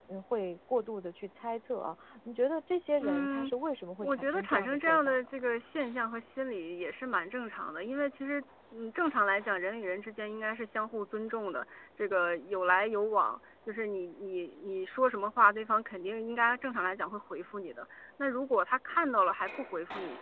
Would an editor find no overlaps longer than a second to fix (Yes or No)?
No